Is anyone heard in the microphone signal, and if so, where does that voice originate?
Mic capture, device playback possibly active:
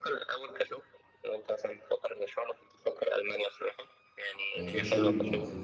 both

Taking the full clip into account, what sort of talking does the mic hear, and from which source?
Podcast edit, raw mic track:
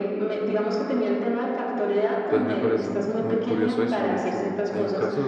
both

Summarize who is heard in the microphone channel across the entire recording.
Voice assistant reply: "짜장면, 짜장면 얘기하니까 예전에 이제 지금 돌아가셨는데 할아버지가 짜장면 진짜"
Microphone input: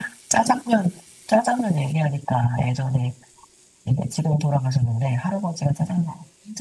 echo only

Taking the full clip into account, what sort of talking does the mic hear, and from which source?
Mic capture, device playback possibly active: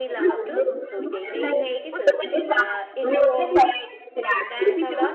both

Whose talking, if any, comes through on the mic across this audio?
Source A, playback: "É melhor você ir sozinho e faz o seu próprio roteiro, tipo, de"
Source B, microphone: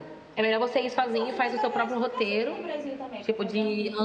both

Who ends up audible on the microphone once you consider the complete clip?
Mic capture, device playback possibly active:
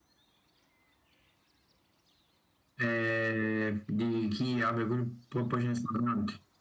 echo only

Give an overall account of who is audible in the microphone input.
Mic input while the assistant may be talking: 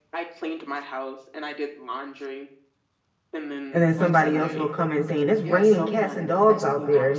both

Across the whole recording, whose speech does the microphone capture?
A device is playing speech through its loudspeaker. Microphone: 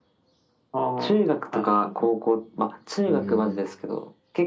both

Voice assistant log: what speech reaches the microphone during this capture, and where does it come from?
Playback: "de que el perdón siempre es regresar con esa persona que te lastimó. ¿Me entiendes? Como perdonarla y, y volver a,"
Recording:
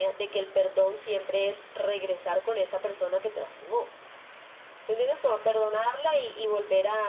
echo only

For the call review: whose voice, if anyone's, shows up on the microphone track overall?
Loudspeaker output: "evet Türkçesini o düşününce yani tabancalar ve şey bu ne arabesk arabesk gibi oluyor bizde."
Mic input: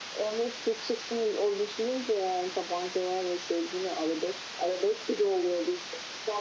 echo only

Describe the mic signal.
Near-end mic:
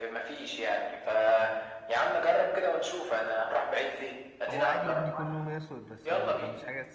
both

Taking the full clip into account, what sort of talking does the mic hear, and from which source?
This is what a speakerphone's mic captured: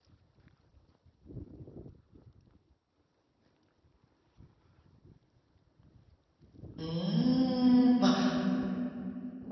user only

